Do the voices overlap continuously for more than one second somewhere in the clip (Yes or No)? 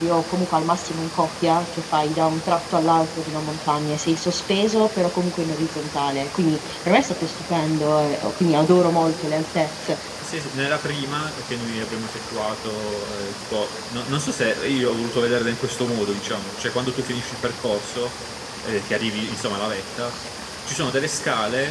No